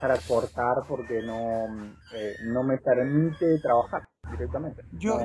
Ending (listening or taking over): taking over